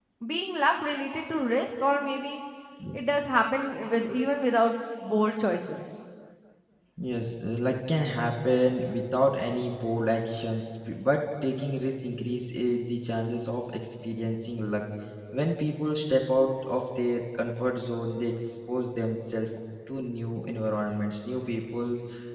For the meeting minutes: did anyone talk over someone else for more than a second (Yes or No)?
No